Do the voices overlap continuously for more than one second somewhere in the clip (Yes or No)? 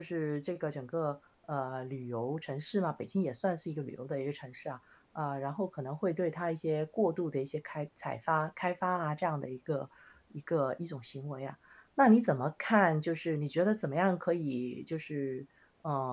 No